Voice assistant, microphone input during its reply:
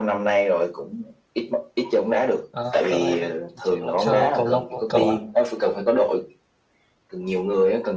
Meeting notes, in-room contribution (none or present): present